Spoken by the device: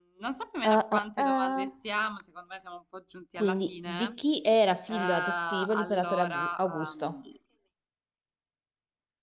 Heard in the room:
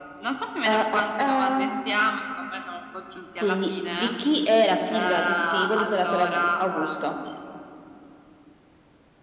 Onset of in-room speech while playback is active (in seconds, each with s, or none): none